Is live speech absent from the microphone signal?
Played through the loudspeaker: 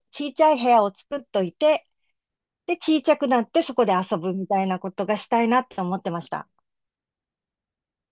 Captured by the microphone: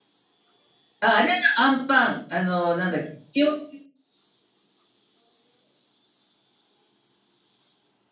No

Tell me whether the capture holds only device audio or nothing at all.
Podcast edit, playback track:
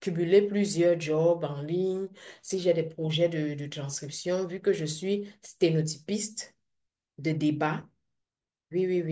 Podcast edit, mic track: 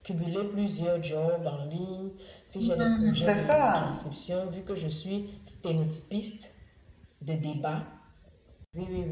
No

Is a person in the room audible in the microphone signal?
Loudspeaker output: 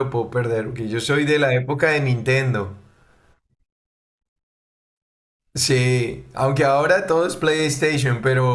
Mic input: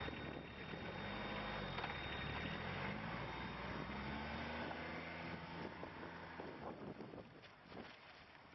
No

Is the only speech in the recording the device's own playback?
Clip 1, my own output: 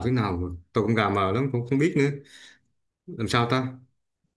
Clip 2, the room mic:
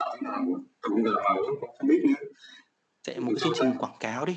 No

